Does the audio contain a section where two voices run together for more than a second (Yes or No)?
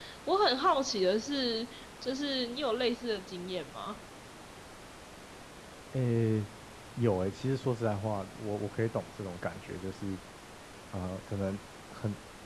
No